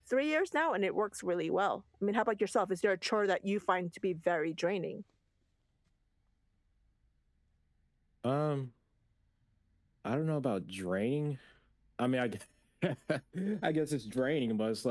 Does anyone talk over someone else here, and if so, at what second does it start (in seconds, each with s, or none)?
none